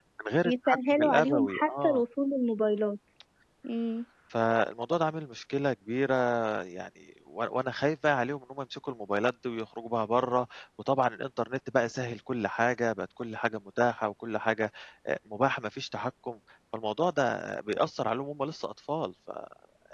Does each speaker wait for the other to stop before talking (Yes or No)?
No